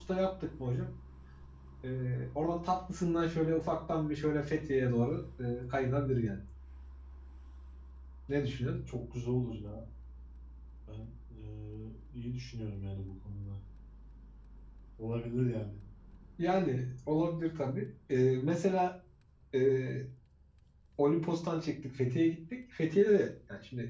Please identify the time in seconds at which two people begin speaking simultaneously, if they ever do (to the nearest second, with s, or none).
none